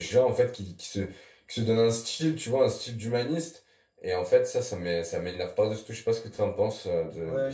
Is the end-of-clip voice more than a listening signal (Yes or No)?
Yes